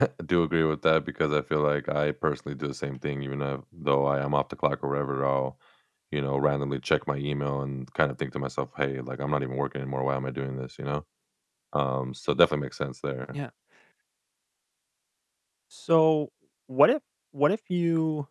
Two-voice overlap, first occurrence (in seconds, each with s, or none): none